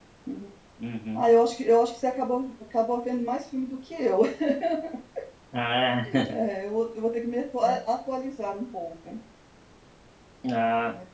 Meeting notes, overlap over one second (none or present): none